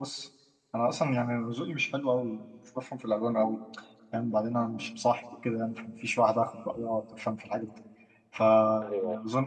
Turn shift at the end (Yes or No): No